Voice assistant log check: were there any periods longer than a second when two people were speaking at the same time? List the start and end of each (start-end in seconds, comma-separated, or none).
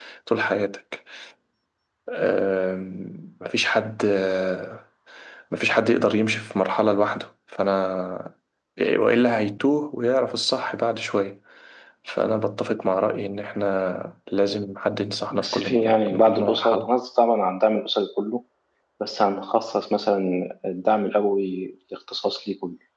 15.3-16.9